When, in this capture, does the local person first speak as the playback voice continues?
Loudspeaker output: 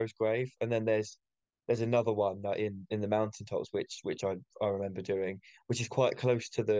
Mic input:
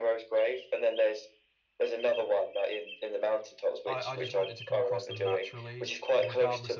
4 s

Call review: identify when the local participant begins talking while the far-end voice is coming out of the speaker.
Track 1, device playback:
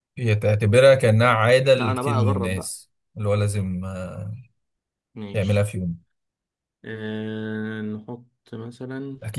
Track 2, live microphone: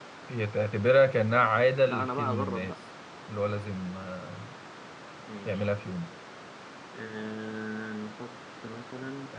none

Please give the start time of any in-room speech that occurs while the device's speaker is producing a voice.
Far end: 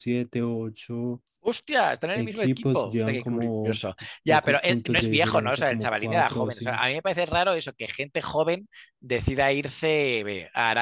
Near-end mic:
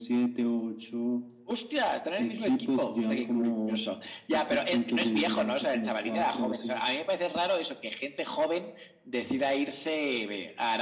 none

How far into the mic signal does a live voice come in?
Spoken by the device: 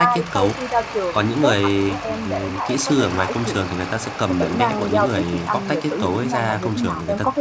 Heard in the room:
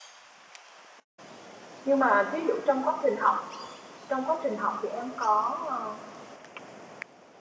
2 s

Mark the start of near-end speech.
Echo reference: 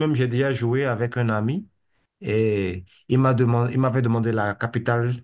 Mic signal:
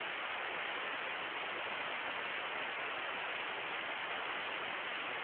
none

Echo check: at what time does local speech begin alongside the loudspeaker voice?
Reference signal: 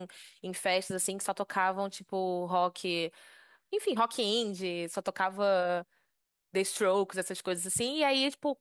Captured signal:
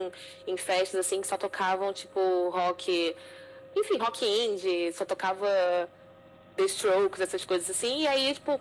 none

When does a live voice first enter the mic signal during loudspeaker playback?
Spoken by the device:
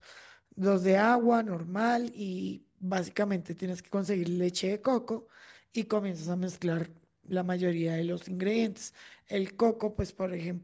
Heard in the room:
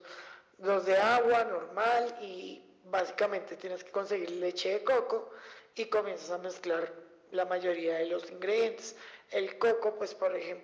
none

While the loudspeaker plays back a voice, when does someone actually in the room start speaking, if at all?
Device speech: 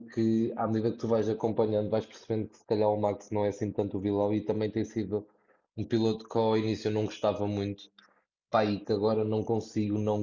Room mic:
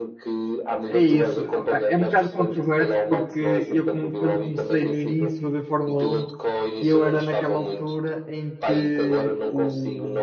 1 s

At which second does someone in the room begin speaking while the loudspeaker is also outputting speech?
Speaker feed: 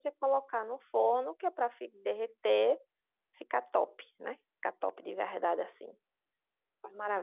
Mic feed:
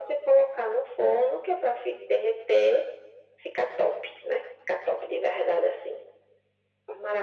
none

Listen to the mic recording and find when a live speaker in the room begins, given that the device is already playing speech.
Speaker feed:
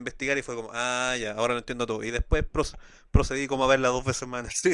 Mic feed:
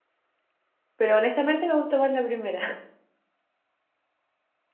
1 s

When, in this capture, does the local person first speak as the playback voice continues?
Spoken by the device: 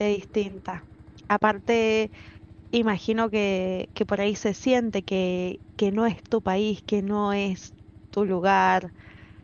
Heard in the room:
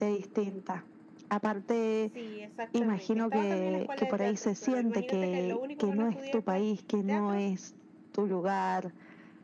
2 s

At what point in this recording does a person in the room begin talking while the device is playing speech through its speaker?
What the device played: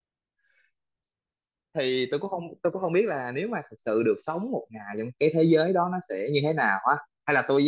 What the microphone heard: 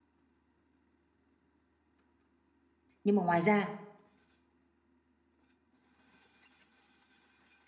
3 s

